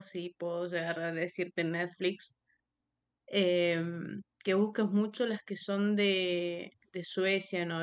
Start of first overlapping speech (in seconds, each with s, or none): none